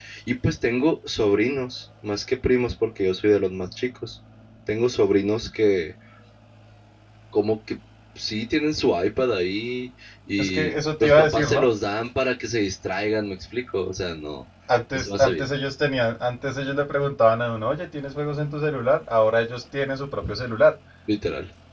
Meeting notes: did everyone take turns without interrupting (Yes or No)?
No